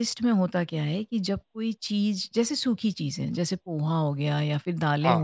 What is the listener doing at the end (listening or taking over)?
listening